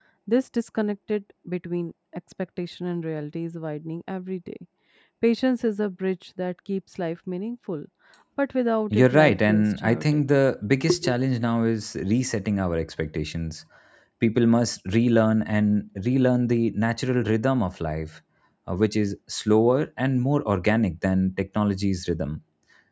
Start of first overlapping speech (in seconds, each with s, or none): 8.9 s